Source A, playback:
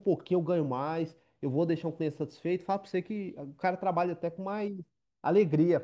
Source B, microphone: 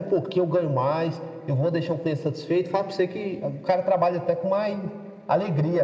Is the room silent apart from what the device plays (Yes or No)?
Yes